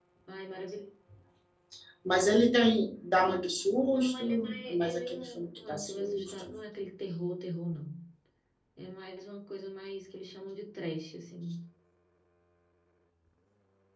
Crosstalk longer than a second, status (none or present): present